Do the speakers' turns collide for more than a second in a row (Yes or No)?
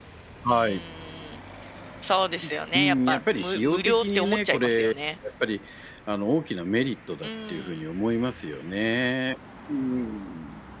Yes